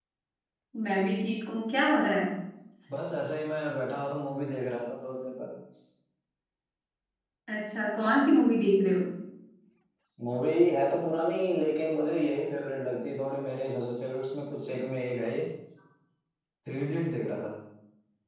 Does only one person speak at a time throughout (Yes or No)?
Yes